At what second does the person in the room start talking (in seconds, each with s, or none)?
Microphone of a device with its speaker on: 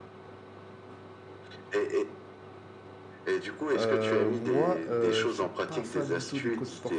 3.7 s